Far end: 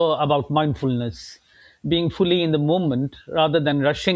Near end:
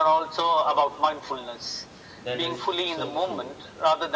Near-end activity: present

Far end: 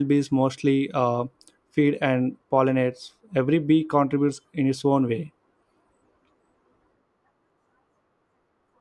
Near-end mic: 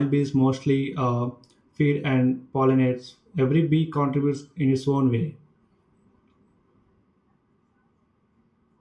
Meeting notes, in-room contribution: none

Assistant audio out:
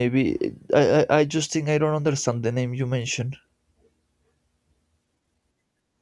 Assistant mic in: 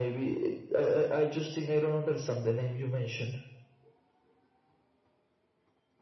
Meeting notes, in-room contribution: none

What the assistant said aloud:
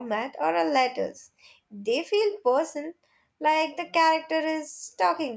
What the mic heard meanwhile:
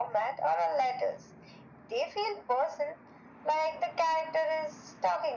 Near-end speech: none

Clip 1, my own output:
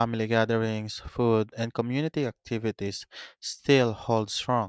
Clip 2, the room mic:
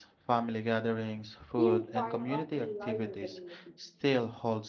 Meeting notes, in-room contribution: present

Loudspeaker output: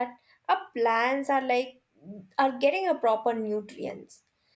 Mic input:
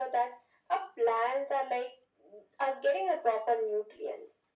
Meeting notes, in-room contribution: none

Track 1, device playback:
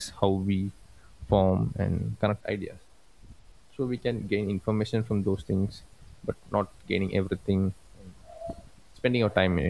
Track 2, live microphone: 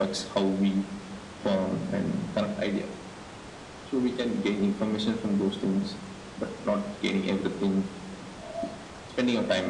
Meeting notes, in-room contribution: none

